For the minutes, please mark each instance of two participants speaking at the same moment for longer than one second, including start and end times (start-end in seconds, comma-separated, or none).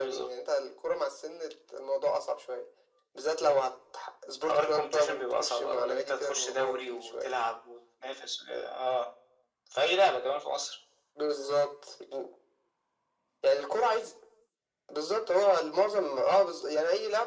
4.5-7.3